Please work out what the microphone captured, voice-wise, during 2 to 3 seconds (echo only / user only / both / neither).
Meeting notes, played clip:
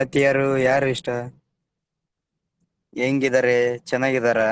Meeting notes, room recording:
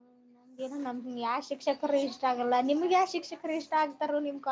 user only